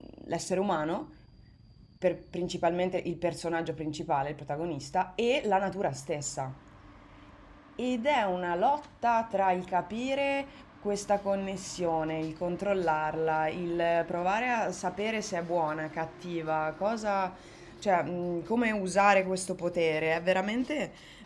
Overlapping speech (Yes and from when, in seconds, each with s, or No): No